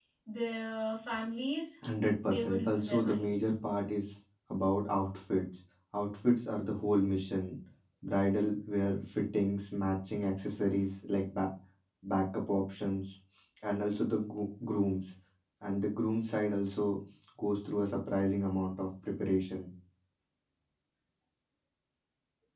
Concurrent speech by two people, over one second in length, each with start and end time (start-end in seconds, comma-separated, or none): 2.2-3.5